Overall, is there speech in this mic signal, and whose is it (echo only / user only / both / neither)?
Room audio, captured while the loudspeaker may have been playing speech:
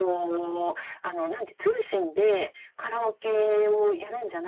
echo only